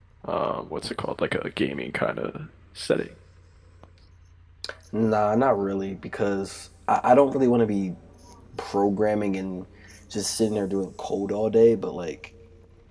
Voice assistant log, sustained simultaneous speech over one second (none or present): none